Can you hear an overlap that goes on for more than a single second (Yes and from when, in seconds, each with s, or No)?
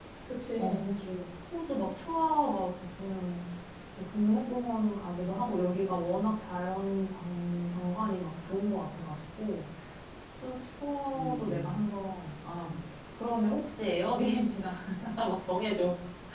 No